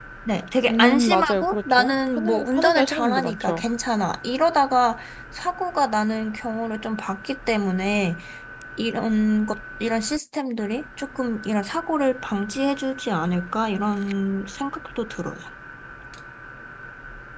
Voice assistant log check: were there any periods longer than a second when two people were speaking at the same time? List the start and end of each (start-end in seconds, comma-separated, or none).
0.7-3.6